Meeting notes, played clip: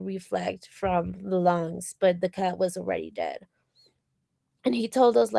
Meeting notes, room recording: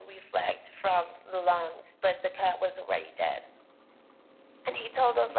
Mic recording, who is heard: echo only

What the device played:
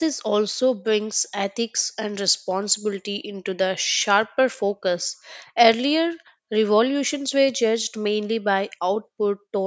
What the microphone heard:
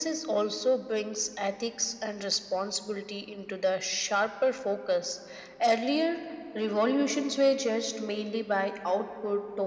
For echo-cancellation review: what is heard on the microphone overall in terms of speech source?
echo only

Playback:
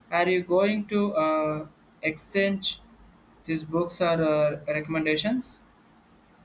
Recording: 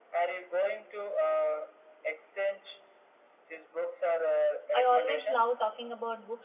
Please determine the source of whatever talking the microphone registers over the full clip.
both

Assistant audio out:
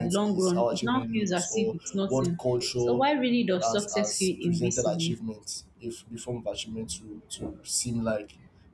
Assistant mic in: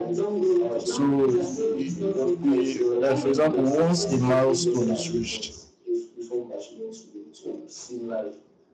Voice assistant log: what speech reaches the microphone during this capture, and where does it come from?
both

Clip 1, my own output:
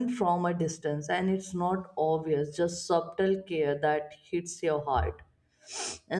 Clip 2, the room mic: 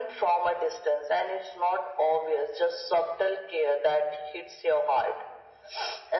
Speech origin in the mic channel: echo only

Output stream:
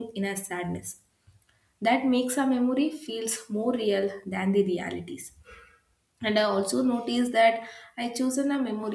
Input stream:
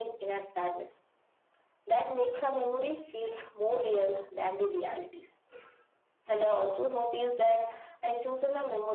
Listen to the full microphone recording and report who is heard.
echo only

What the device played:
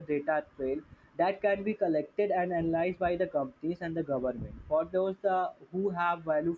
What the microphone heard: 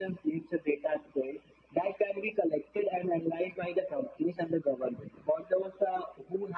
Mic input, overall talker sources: echo only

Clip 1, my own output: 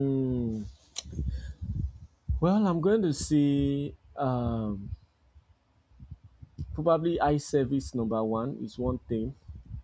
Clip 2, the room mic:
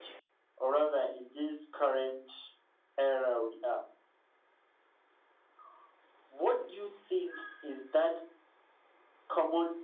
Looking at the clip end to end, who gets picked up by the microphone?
user only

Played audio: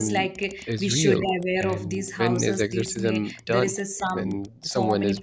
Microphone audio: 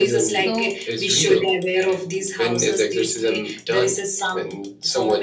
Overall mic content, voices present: both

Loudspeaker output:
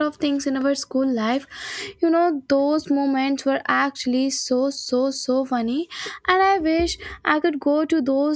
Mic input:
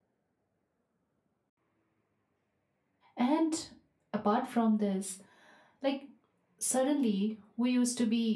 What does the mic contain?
user only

